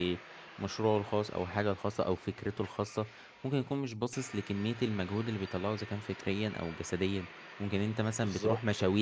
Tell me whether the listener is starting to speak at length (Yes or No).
No